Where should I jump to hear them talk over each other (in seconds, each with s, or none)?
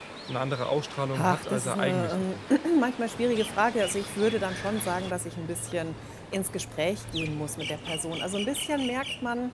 1.1 s